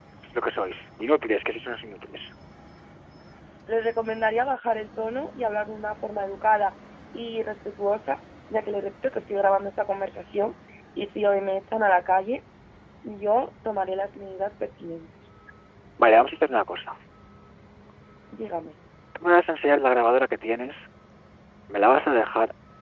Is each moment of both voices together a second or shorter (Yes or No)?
Yes